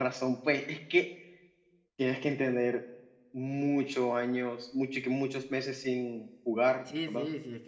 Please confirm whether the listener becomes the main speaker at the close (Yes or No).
Yes